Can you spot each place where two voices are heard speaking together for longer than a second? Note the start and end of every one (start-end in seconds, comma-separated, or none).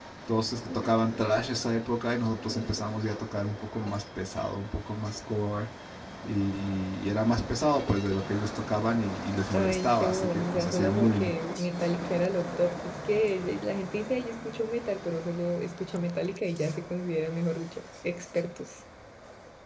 9.5-11.3